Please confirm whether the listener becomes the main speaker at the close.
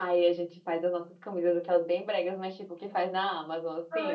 Yes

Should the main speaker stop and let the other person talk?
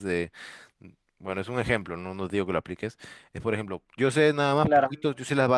No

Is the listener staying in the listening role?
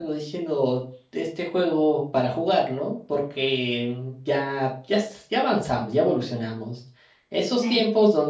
Yes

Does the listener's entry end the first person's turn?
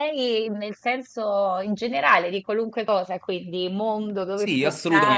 Yes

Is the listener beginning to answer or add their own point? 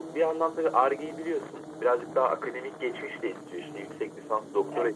No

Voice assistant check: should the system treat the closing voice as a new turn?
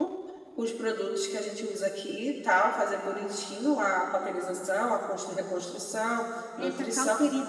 Yes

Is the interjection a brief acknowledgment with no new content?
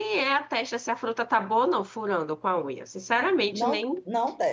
No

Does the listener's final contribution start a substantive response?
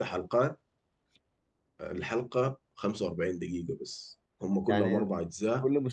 Yes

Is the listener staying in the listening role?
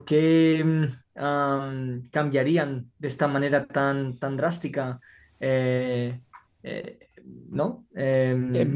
No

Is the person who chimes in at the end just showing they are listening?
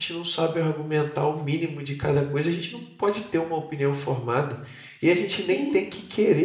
Yes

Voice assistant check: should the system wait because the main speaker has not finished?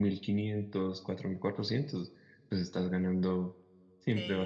No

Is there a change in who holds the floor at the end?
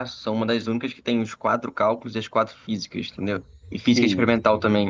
No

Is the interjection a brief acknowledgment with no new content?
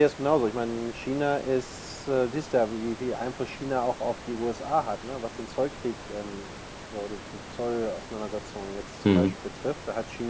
Yes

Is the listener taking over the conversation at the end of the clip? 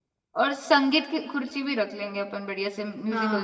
Yes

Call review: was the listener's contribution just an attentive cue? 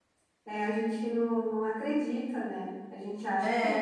Yes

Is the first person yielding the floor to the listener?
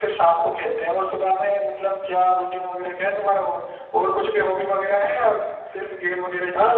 Yes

